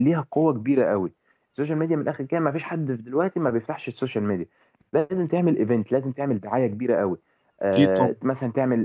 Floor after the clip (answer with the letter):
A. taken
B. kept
B